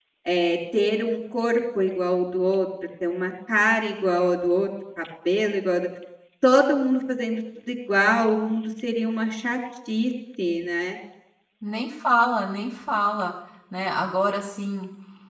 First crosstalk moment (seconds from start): none

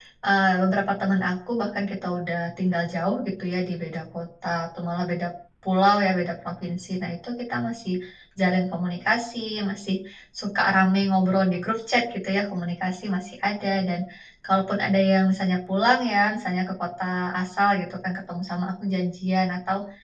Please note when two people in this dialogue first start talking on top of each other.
none

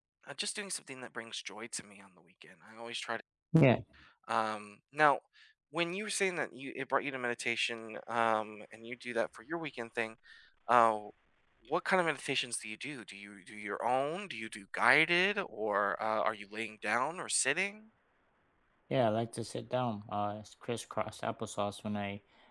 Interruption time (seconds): none

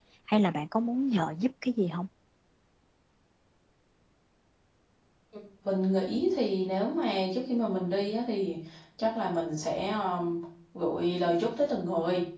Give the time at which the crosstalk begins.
none

